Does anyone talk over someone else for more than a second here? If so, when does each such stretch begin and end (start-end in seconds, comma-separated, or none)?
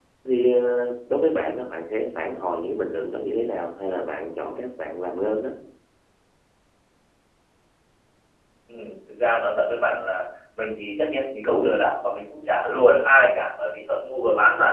none